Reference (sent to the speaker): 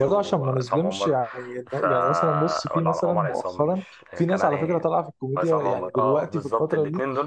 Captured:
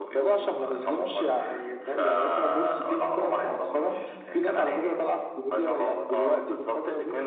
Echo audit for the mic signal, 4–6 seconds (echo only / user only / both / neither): echo only